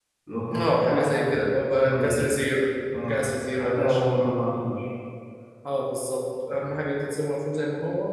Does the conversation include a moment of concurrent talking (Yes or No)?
Yes